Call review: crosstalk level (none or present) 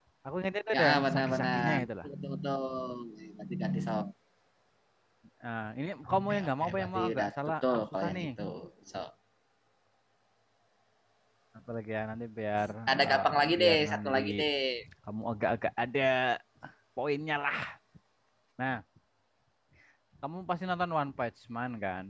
present